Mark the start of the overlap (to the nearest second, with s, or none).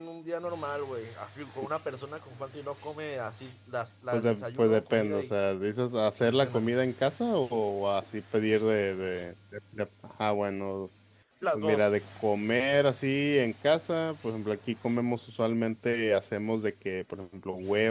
4 s